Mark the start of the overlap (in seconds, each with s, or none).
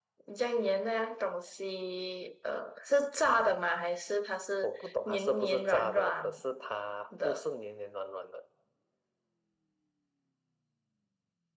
4.6 s